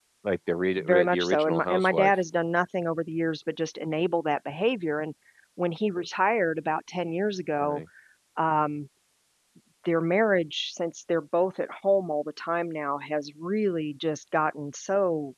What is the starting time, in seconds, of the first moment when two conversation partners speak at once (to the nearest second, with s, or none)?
1 s